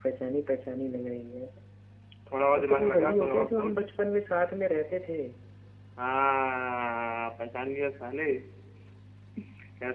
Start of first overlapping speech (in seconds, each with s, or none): 2.5 s